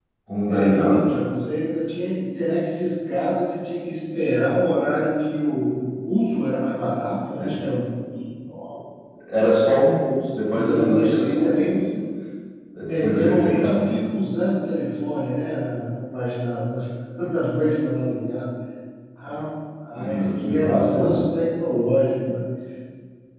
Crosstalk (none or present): present